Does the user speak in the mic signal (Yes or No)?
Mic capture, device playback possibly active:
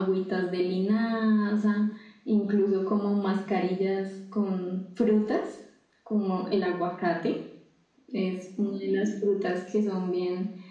No